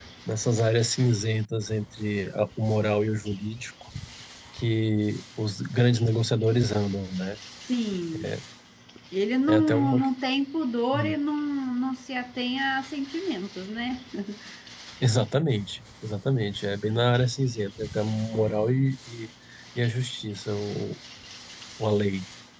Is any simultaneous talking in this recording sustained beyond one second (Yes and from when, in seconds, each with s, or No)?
No